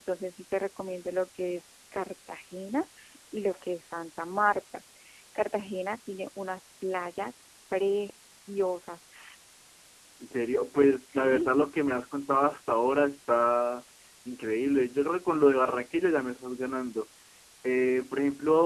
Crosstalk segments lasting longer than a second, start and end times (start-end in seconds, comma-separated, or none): none